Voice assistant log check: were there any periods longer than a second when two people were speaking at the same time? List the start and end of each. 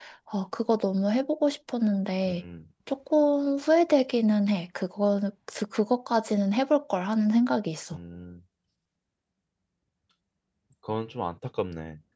none

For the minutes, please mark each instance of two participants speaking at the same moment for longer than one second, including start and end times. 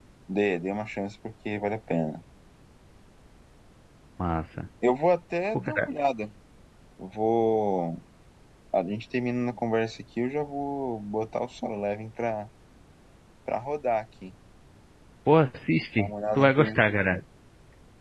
16.0-17.2

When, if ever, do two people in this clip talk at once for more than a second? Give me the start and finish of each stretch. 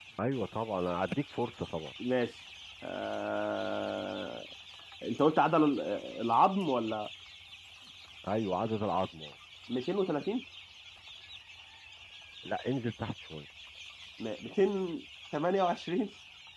none

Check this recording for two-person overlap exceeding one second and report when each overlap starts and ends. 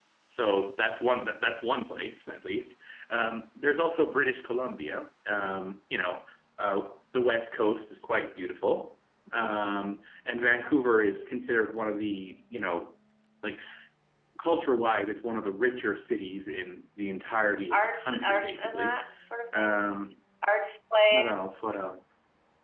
17.7-19.0

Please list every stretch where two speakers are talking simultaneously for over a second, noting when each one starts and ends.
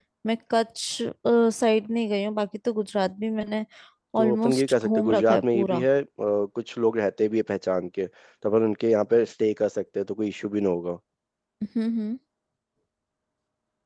4.2-5.8

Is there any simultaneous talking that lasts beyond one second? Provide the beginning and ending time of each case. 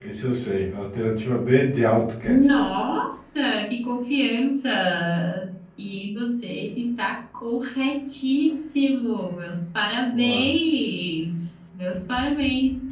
none

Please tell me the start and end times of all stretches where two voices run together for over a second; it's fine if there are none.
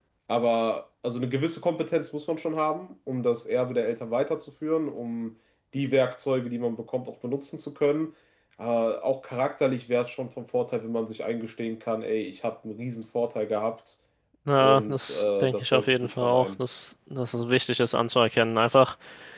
14.6-16.5

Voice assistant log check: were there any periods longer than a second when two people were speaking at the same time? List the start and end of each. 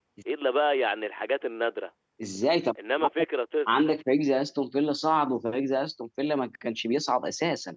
none

